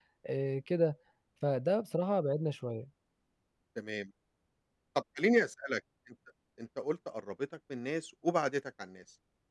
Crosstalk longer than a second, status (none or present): none